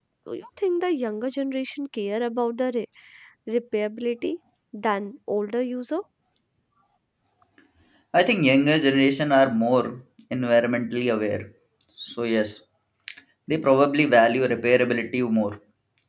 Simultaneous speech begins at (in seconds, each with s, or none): none